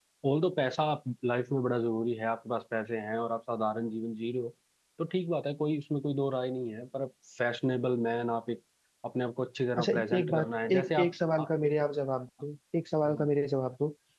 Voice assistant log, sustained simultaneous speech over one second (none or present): present